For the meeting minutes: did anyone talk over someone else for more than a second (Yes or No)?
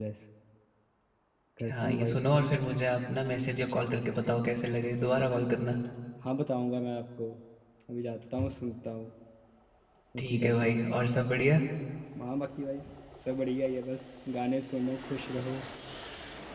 Yes